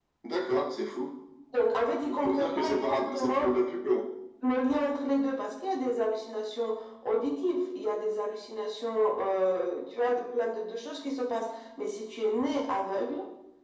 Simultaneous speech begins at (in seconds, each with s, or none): 2.1 s